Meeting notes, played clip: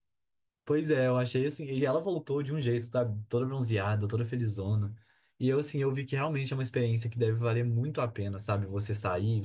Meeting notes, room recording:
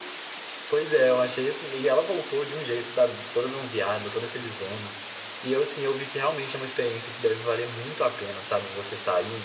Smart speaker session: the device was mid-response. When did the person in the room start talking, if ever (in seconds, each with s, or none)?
none